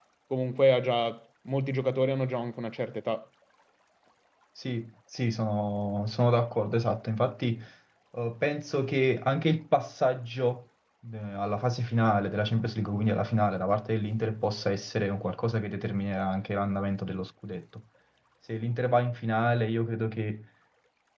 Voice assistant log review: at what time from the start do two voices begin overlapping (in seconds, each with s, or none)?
none